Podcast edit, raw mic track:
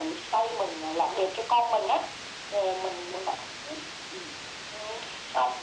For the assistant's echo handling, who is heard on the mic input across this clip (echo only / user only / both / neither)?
echo only